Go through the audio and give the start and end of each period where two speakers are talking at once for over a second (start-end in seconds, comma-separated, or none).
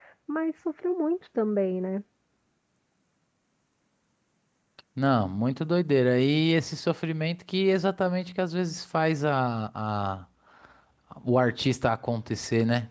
none